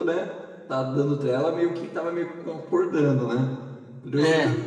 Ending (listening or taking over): listening